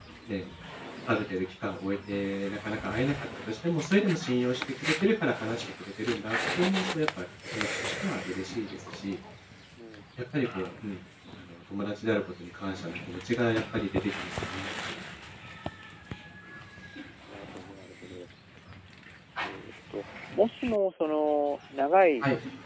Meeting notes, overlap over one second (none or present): none